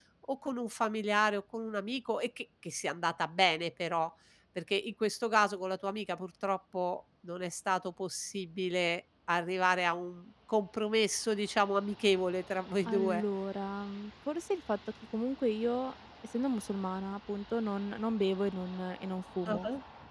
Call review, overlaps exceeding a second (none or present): none